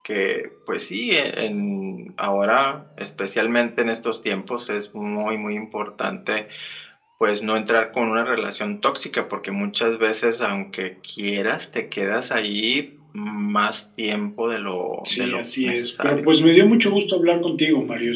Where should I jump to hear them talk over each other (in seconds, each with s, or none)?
15.1 s